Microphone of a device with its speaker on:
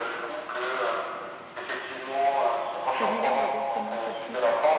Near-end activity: present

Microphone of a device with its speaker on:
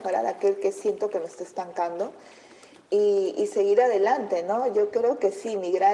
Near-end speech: none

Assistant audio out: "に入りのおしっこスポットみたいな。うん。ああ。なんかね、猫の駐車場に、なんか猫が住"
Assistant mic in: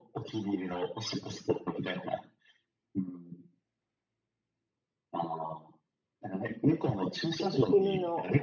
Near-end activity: present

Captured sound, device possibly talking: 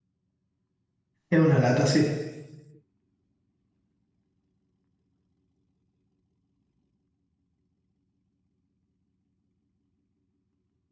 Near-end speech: present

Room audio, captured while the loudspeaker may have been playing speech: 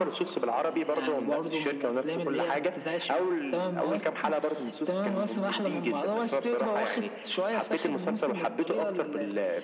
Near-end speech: none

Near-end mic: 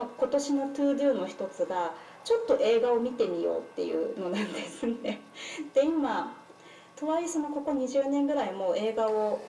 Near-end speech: none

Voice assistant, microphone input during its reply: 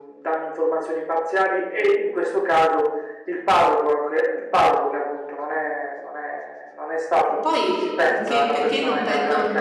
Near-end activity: present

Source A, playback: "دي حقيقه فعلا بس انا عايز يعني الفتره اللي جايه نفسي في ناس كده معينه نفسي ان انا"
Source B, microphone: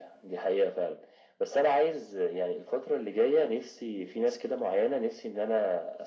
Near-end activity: none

